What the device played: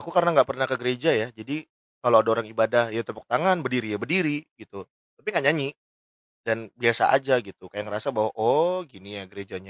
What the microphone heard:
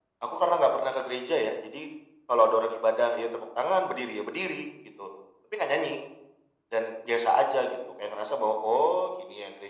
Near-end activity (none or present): none